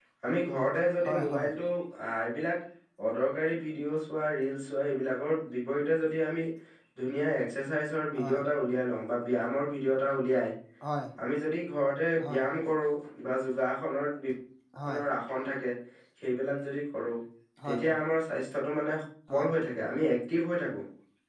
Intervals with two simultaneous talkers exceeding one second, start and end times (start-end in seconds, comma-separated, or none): none